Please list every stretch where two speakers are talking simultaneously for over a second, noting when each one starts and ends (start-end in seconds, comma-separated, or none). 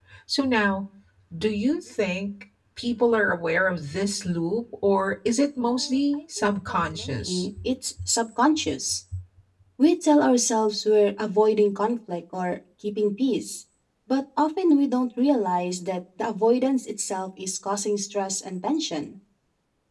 5.8-7.4